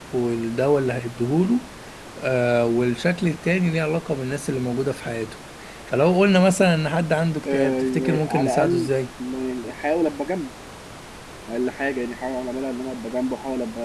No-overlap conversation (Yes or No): No